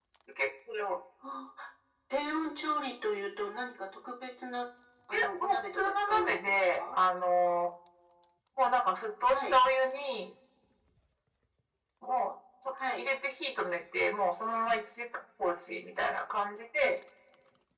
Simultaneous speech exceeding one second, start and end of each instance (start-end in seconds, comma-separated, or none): 5.1-7.0